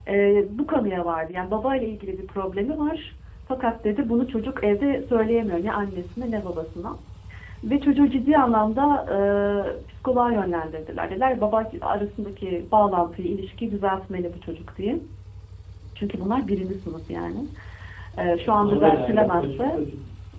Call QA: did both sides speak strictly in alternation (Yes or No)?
No